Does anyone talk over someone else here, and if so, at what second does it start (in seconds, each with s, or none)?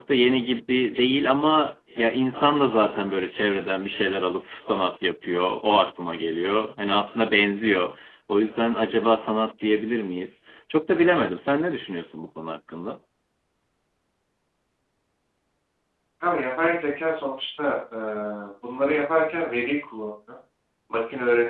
none